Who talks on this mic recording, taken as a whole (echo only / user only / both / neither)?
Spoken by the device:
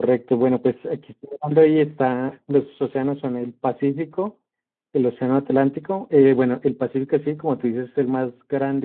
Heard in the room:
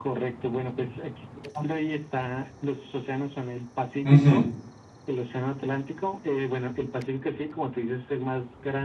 both